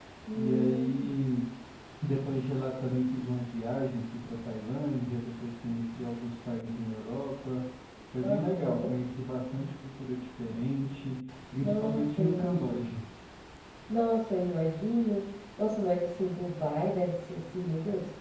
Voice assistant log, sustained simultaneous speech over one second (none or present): present